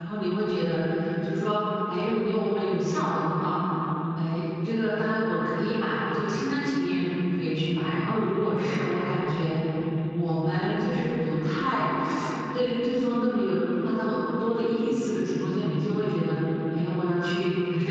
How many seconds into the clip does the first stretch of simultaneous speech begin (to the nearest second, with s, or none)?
none